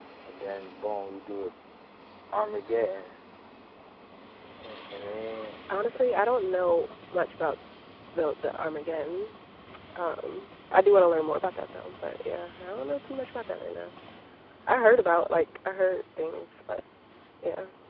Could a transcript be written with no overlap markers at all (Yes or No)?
Yes